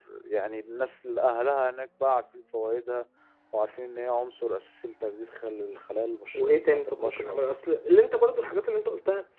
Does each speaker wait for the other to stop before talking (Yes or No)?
No